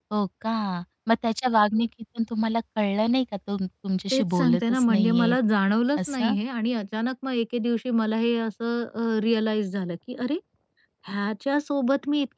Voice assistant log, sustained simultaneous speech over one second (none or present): present